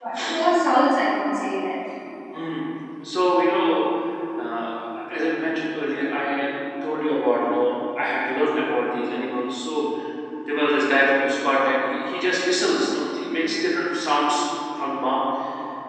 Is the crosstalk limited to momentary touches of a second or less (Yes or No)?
Yes